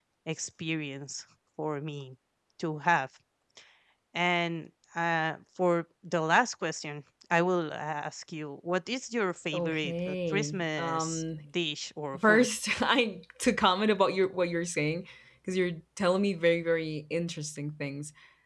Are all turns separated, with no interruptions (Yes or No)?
No